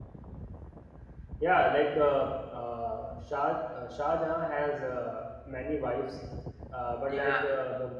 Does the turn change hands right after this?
No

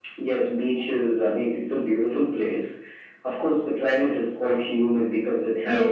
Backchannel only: No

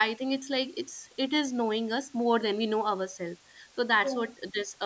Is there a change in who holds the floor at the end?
No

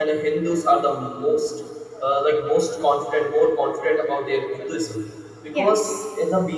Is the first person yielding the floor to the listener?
No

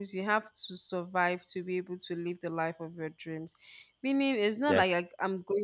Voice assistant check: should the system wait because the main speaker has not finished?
Yes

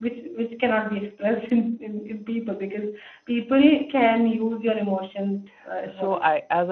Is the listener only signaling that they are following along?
No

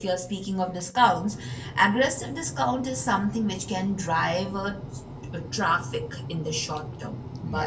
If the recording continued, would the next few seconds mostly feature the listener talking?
No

